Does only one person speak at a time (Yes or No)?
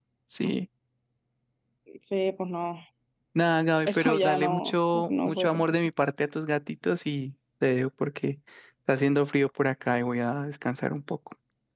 No